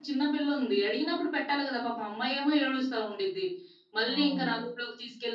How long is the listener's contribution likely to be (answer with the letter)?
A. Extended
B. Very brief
B